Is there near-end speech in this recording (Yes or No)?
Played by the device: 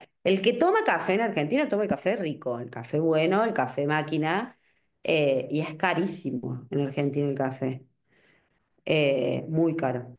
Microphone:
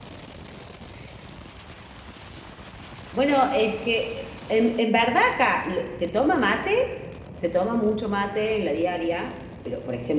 Yes